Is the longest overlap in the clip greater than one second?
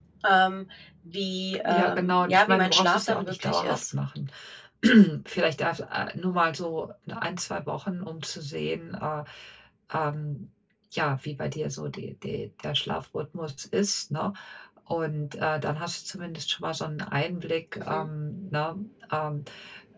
Yes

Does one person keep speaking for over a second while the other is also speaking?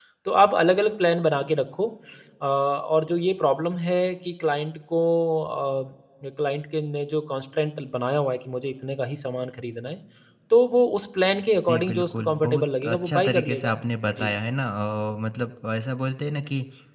Yes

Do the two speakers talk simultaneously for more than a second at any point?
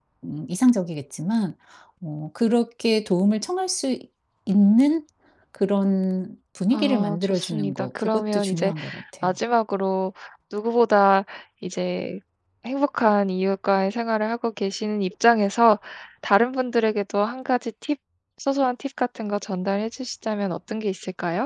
Yes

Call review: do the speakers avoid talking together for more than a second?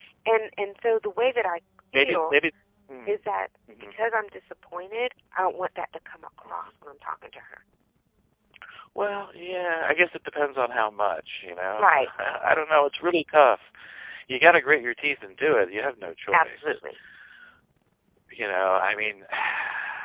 Yes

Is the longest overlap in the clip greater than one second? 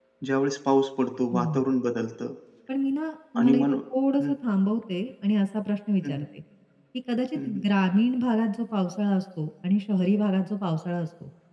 No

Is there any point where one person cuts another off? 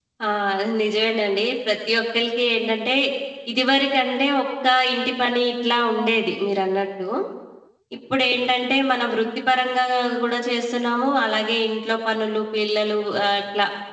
No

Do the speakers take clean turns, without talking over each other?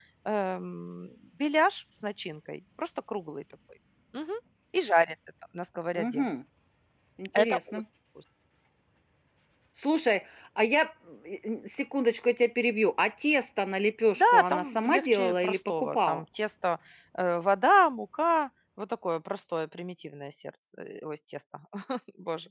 No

